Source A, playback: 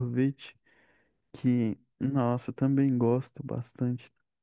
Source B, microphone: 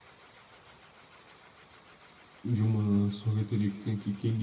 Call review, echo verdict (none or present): none